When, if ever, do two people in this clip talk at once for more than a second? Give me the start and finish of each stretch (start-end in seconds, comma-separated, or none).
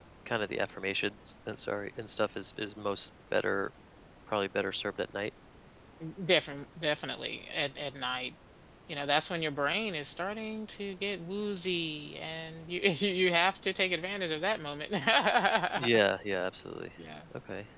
none